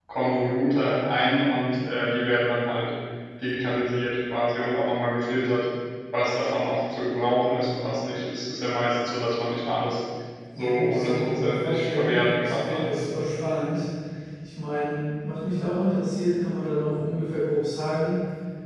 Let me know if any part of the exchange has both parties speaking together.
Yes, from 10.6 s

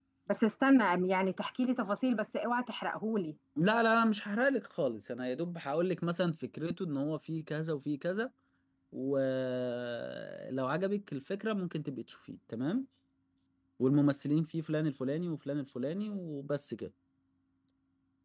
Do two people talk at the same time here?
No

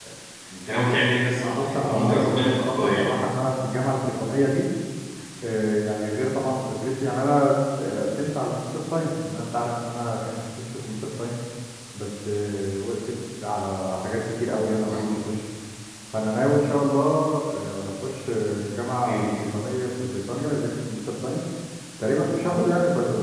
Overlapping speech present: Yes, from 1.5 s

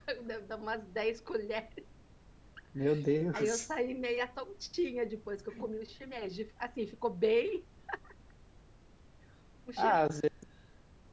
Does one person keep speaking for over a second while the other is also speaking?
No

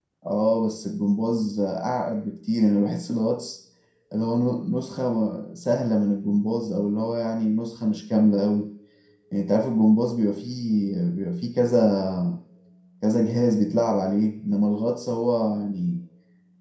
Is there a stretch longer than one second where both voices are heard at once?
No

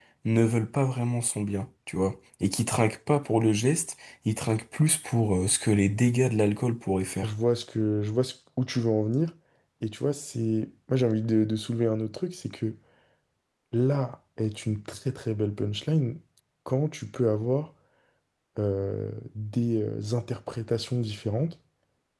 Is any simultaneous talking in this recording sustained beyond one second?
No

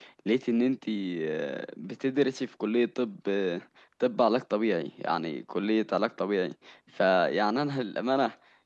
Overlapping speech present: No

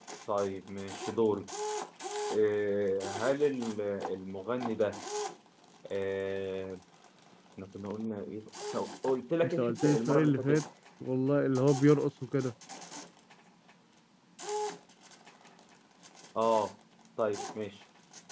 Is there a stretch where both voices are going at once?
Yes, from 9.4 s

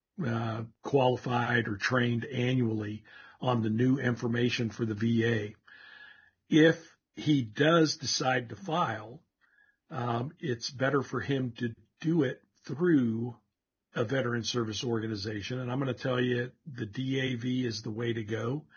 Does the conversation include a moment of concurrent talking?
No

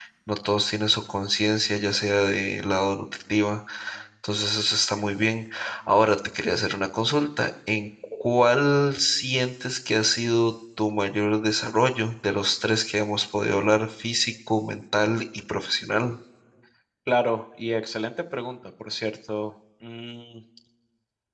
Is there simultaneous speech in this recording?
No

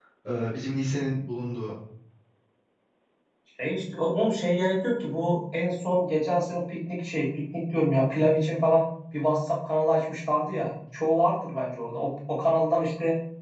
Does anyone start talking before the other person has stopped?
No

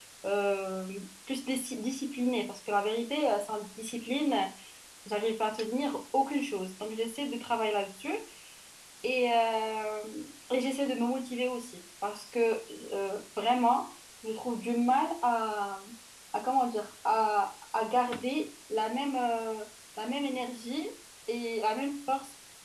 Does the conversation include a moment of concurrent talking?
No

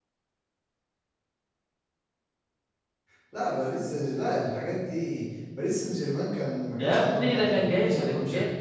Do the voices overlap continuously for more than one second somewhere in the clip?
Yes, from 6.8 s

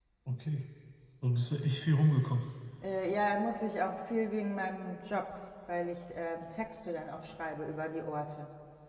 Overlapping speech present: No

